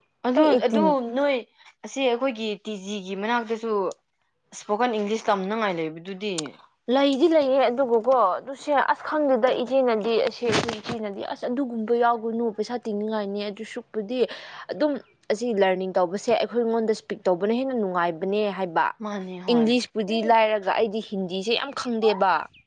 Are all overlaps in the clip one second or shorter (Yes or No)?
Yes